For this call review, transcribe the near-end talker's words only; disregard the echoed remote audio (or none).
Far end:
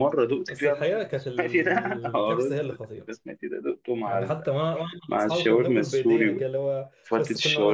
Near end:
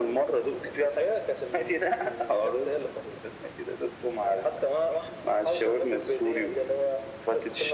none